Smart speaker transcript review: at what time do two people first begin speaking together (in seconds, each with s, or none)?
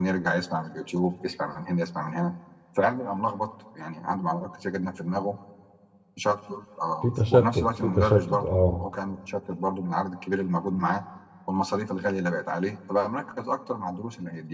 7.0 s